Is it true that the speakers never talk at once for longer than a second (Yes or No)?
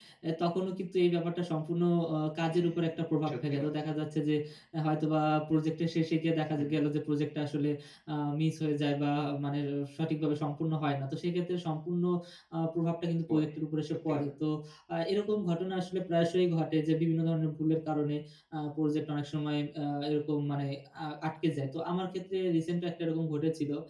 Yes